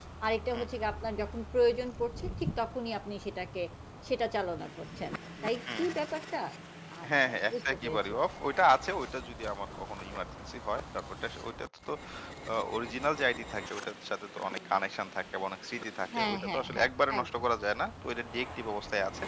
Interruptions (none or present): present